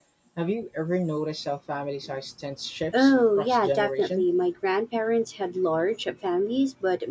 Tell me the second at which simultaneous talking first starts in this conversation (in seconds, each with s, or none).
2.9 s